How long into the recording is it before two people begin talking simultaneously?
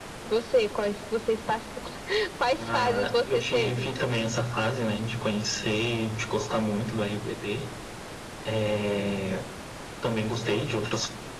2.7 s

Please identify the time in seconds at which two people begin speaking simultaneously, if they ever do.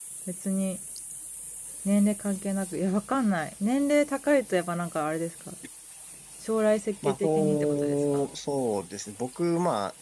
7.0 s

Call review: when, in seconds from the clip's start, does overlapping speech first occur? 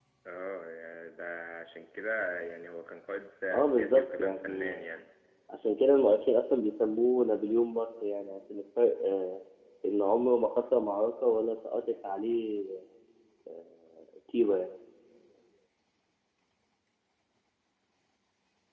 3.5 s

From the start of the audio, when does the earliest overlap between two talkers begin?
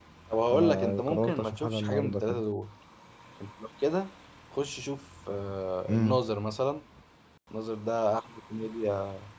0.5 s

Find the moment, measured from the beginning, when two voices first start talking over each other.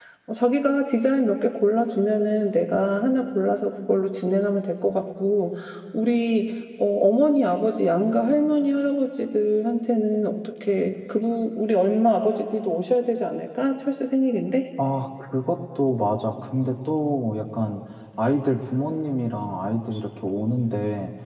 none

